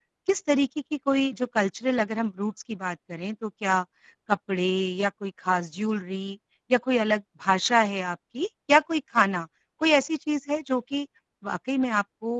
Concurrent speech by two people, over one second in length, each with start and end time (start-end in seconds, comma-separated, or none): none